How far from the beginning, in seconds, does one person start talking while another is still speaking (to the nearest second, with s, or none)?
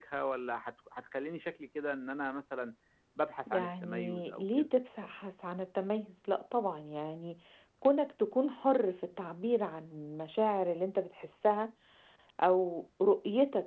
3 s